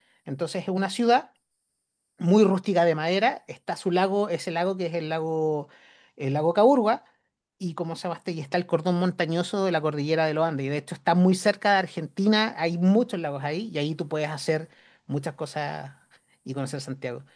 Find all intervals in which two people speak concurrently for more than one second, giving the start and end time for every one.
none

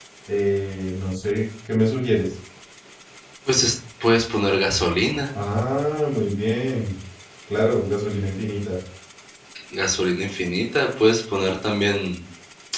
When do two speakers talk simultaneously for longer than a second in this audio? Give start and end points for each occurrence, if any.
none

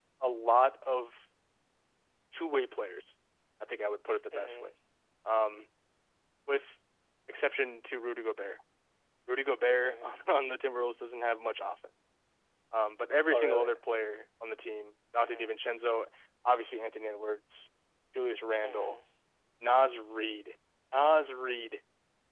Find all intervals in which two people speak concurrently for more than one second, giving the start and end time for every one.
none

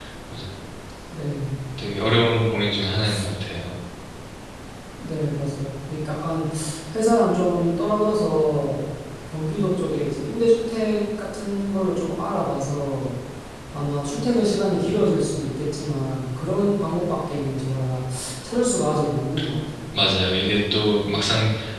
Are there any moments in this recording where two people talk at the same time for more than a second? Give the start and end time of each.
none

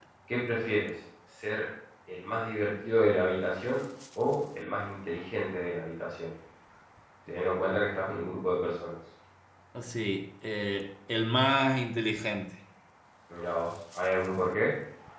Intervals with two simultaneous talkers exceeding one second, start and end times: none

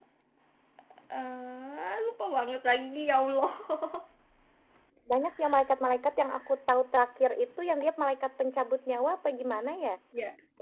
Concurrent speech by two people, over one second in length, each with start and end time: none

